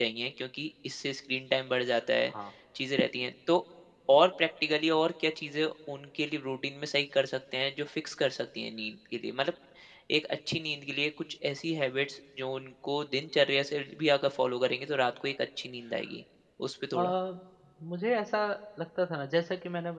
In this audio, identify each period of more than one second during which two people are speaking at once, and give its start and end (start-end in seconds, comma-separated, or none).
none